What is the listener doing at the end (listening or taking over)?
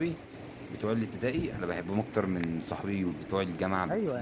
taking over